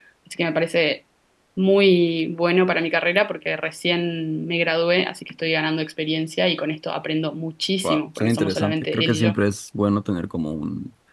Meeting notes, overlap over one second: present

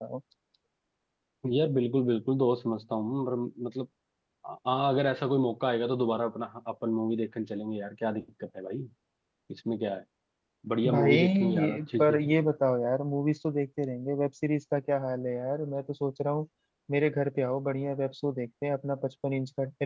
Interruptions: present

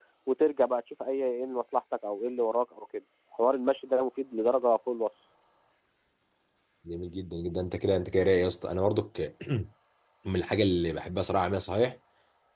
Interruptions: none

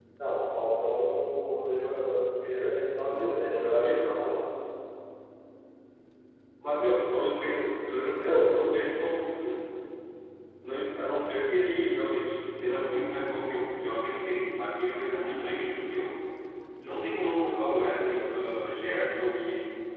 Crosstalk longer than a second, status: none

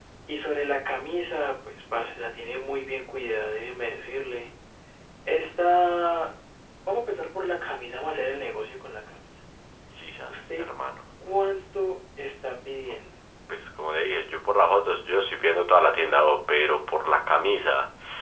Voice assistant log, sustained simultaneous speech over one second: none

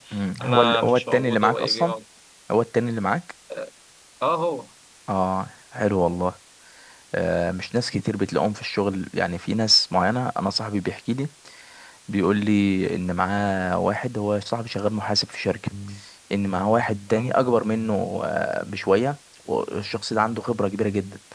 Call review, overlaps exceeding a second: present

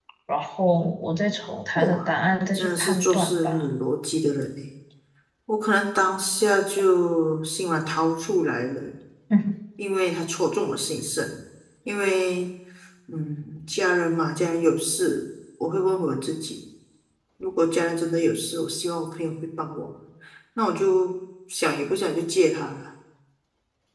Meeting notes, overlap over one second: present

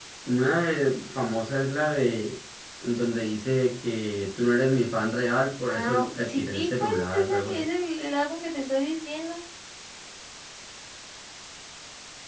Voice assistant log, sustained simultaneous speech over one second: present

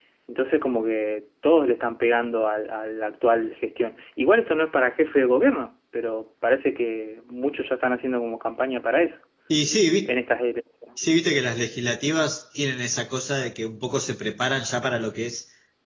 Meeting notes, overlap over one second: none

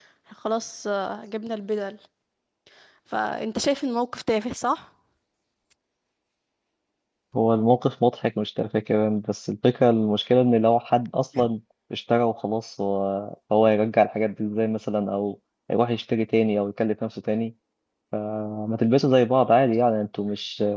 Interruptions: none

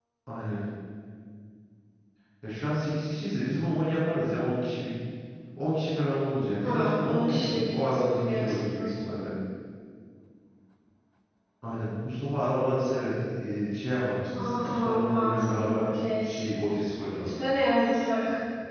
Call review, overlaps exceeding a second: present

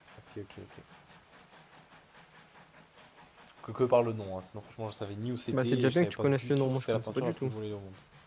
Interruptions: present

